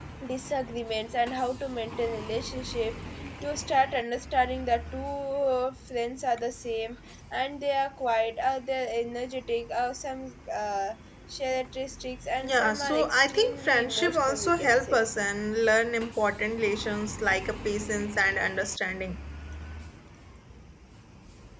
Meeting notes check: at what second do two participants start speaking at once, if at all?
12 s

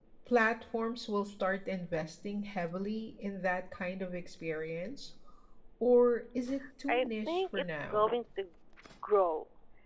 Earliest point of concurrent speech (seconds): 7 s

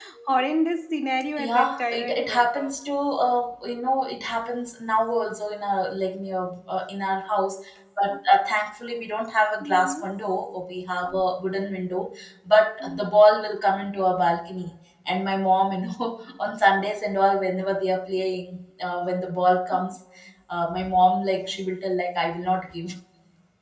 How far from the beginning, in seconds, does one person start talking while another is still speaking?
1 s

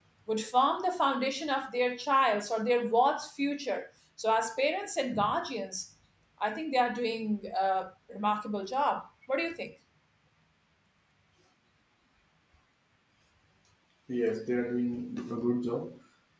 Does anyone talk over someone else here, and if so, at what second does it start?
none

